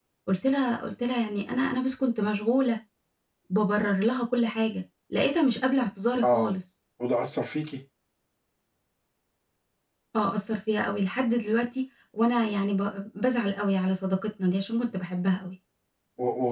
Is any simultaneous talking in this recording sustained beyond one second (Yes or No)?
No